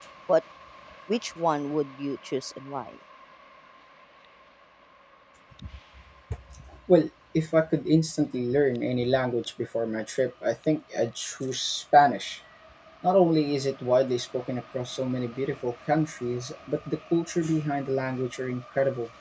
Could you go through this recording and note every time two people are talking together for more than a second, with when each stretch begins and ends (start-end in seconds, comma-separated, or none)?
none